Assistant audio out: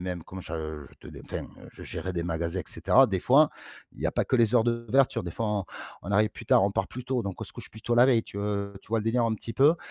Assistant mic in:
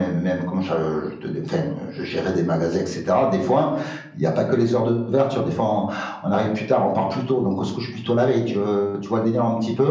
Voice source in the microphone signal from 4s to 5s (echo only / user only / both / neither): echo only